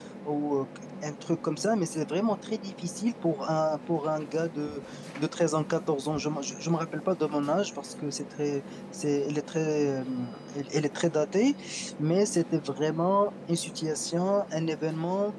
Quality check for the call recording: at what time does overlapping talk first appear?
none

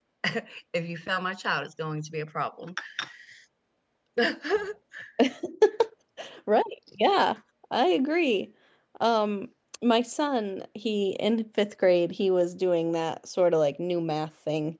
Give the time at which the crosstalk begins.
none

